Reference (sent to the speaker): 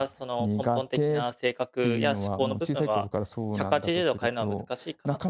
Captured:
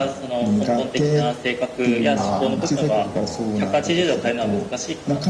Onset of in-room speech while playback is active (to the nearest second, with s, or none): 2 s